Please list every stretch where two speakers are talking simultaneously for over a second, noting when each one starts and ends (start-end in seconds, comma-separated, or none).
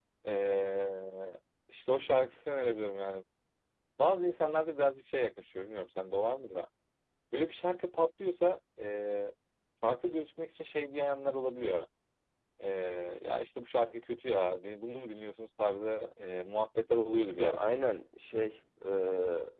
none